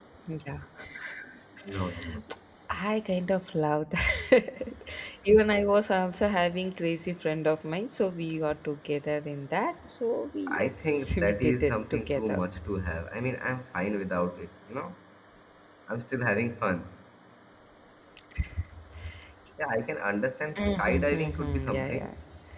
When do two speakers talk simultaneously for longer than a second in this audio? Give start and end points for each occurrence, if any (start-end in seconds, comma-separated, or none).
10.5-12.4, 20.6-22.1